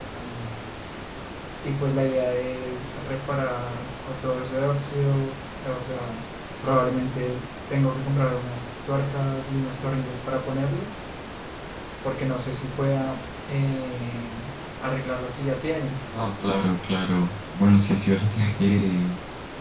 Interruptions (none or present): none